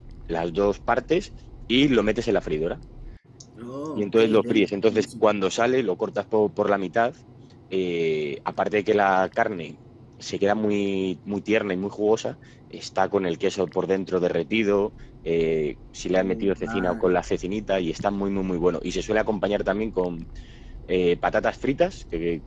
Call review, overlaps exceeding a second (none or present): present